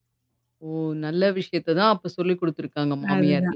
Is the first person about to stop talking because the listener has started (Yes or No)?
Yes